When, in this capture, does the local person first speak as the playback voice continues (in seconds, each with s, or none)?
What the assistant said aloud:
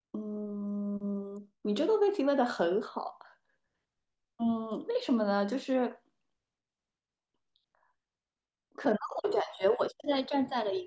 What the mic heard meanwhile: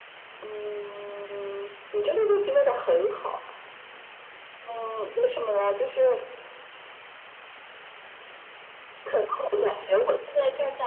none